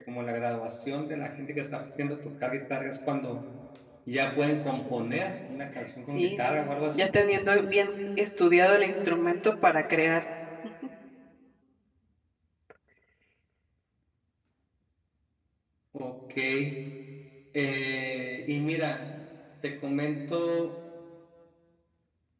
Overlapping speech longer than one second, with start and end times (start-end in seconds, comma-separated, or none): none